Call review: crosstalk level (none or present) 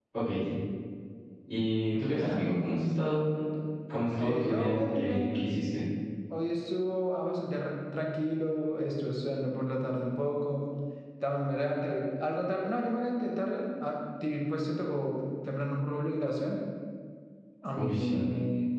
present